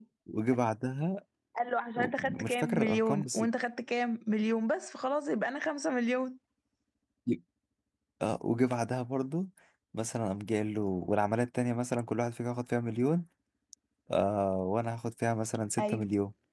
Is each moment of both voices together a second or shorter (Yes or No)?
No